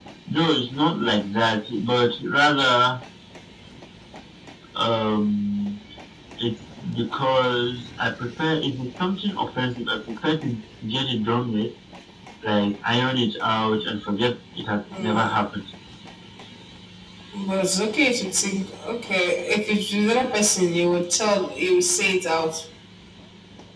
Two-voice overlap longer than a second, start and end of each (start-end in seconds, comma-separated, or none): none